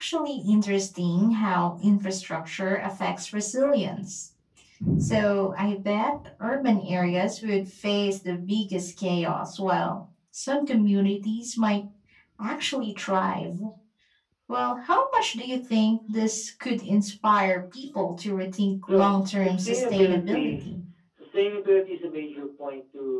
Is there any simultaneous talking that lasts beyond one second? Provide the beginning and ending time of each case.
18.9-20.6

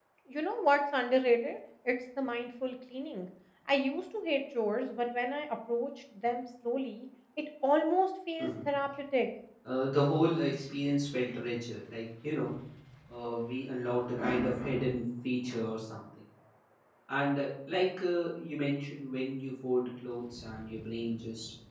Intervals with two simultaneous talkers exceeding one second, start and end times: none

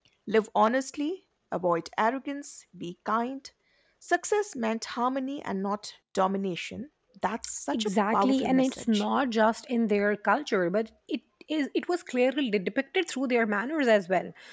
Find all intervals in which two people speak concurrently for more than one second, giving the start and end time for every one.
7.7-9.0

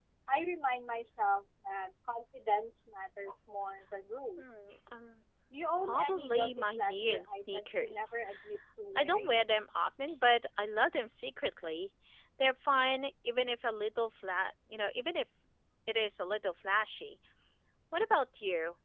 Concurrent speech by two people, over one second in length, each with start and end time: 5.8-8.1

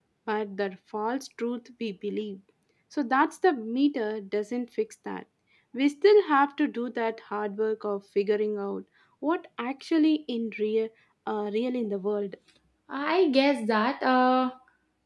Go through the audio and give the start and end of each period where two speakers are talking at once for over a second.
none

